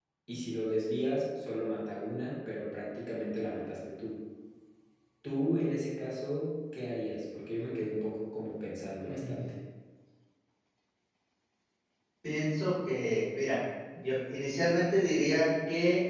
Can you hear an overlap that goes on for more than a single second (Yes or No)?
No